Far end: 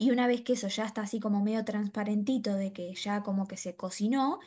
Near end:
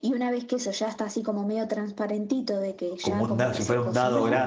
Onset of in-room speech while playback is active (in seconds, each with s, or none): 3.0 s